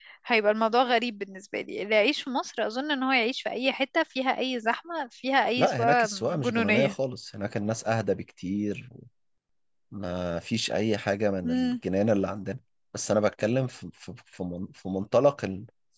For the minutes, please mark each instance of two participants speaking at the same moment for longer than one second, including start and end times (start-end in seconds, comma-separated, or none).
5.6-6.9